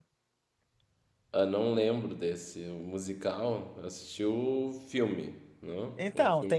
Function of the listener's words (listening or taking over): taking over